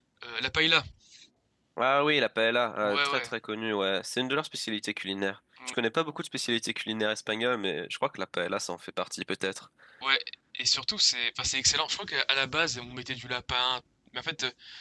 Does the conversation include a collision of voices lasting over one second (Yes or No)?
No